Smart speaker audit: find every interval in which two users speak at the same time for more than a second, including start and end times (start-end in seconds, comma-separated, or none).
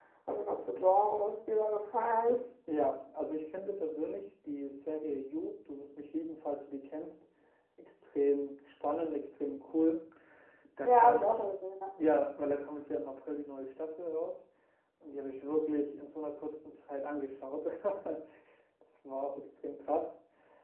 none